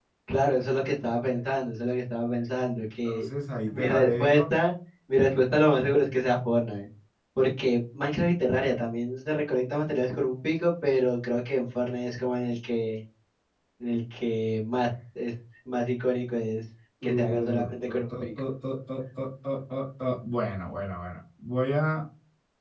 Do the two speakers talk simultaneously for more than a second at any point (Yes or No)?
Yes